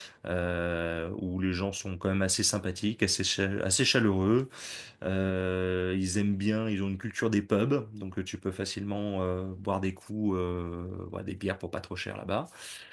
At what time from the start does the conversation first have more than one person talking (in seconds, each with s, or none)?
none